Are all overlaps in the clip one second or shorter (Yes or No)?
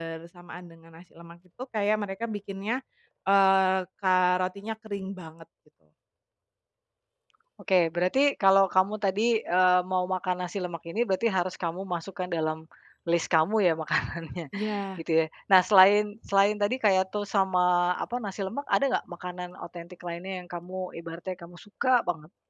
Yes